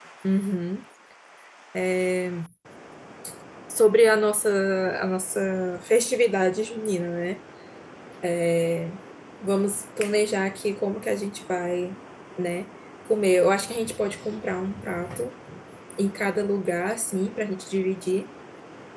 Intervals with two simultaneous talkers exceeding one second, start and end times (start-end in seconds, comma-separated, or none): none